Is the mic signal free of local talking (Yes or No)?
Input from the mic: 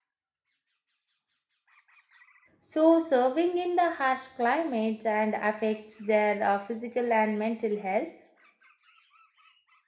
No